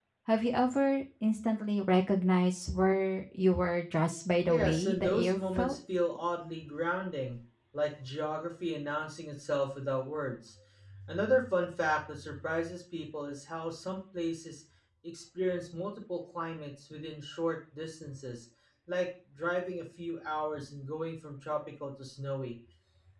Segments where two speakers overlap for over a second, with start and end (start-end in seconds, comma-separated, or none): 4.5-5.8